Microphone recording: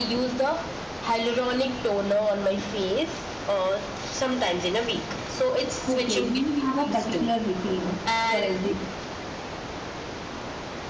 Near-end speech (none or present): present